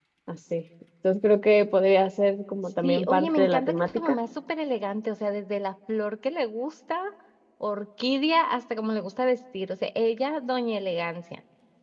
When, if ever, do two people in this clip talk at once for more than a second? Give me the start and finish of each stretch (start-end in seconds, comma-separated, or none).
2.8-4.2